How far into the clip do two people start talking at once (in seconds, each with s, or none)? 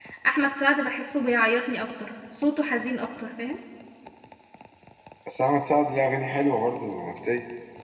none